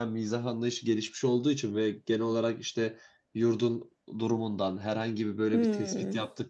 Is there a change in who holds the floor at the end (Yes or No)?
No